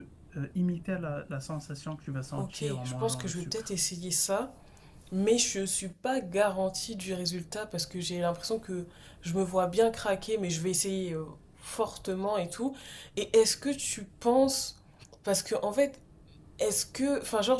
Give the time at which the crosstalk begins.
2.4 s

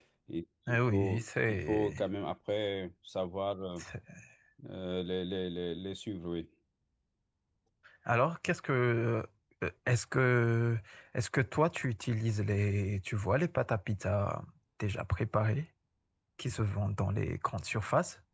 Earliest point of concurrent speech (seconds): 0.7 s

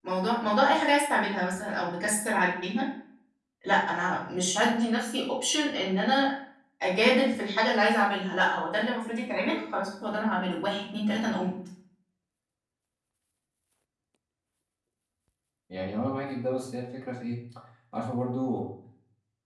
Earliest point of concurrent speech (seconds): none

